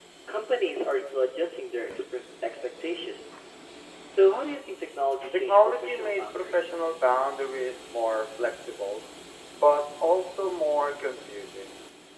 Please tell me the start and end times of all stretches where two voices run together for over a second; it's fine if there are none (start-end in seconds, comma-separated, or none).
5.5-6.7